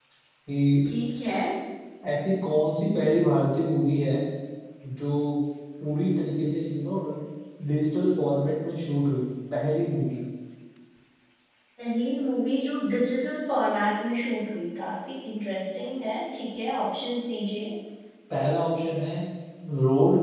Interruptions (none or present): none